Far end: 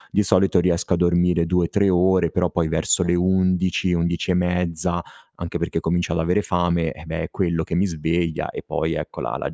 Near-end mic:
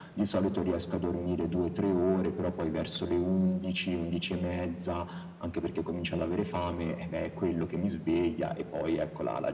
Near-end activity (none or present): none